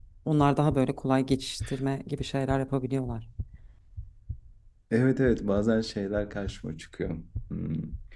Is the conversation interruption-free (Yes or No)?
Yes